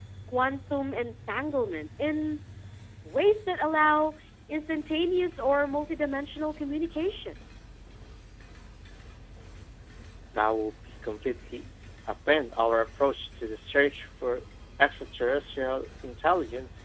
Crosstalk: none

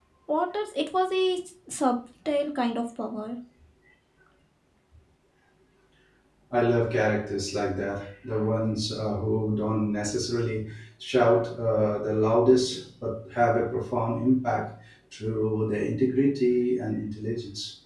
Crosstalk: none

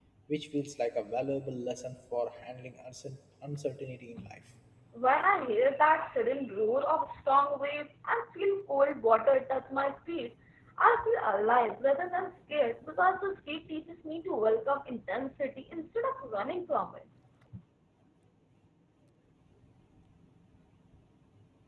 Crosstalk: none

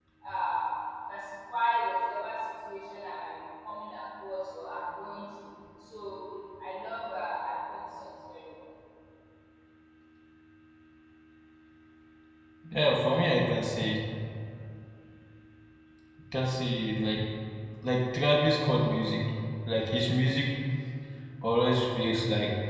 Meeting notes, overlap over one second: none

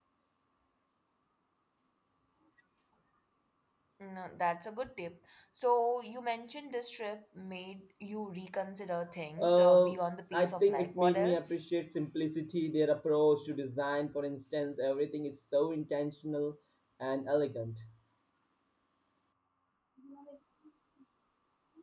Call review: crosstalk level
present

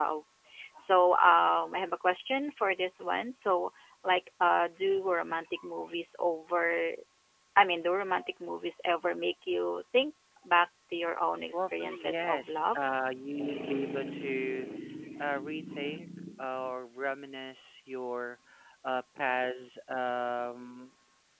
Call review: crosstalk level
present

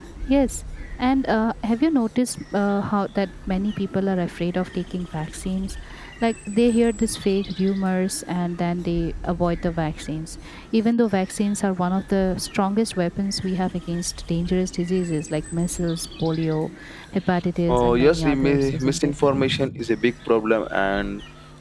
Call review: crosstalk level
present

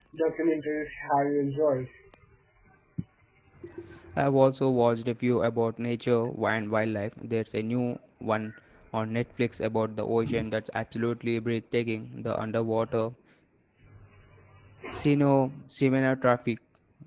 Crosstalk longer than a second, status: none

